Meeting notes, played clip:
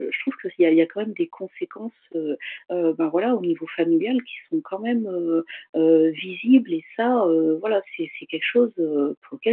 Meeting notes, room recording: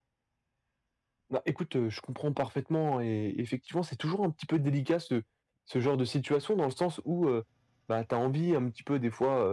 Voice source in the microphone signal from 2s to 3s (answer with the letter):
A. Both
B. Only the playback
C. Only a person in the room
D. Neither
C